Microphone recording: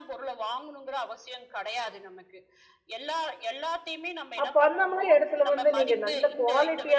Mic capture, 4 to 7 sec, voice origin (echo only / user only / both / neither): both